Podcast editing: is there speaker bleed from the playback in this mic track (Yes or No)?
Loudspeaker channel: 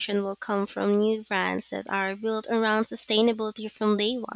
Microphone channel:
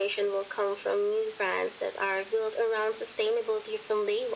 Yes